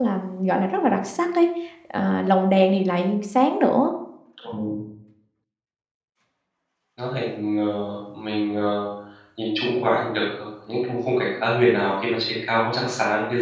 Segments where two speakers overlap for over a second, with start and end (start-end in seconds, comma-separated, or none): none